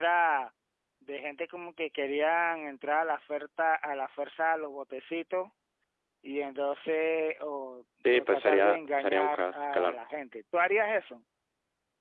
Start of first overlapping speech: 8.1 s

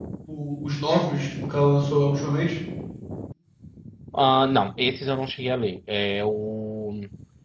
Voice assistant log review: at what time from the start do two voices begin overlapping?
none

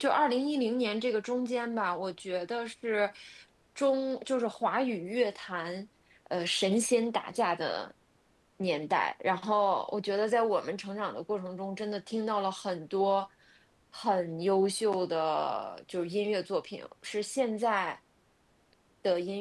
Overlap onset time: none

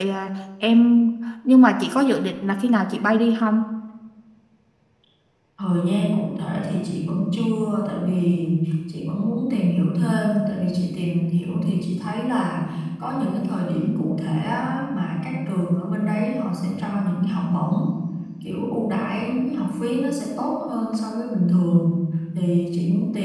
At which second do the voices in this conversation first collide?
none

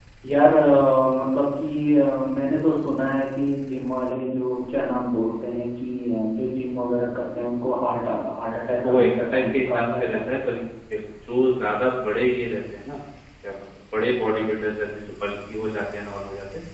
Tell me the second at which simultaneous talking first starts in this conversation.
8.7 s

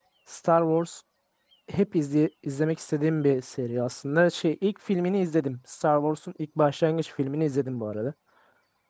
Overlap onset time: none

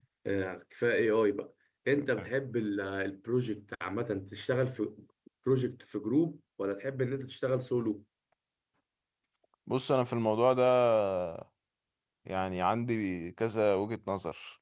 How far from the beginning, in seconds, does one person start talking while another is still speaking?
none

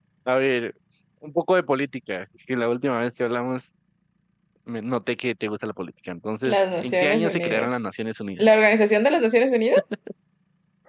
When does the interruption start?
6.4 s

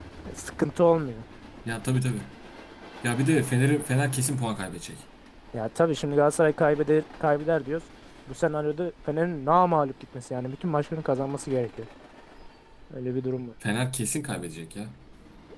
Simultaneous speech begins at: none

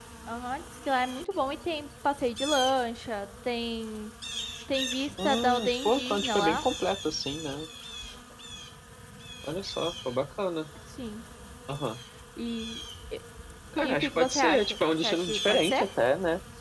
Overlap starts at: 5.2 s

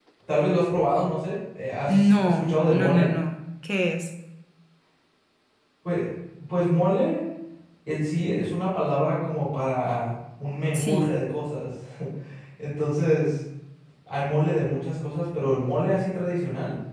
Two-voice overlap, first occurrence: 1.9 s

